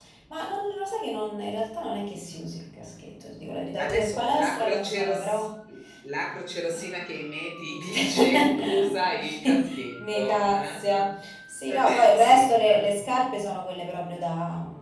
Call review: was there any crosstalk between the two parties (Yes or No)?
Yes